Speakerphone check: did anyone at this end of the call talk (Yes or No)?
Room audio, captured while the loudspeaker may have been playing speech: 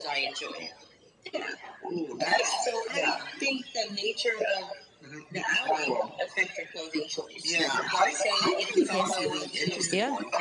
Yes